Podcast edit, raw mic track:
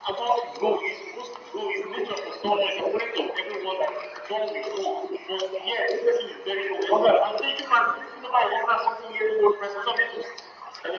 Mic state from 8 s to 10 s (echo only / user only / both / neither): echo only